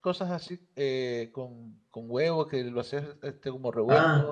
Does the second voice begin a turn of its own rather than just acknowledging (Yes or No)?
Yes